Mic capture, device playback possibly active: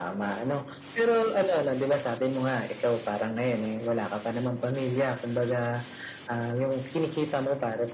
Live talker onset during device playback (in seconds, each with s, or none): none